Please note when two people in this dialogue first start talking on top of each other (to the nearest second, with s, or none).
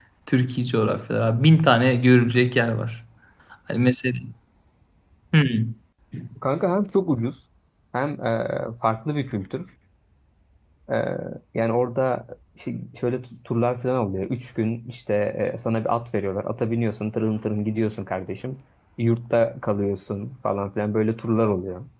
none